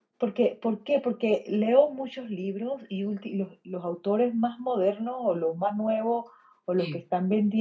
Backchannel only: Yes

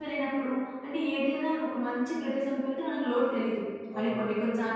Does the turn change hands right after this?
No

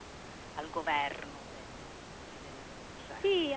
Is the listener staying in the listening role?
No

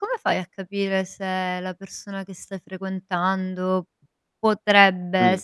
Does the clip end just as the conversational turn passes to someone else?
No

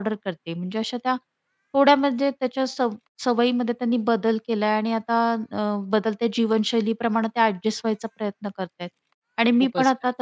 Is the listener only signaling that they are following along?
Yes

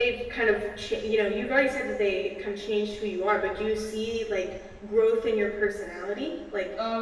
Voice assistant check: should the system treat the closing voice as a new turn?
Yes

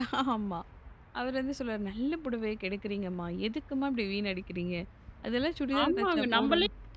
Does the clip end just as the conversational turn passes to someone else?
Yes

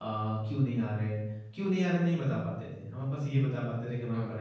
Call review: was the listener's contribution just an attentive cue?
Yes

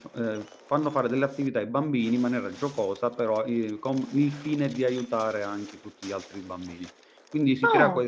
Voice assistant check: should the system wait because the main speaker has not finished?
Yes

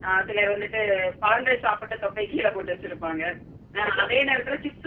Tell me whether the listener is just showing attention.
Yes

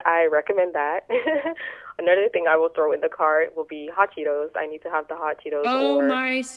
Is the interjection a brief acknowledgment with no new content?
No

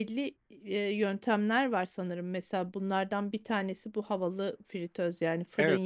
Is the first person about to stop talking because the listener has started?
No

